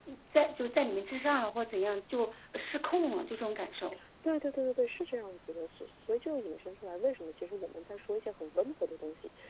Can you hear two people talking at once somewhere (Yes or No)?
No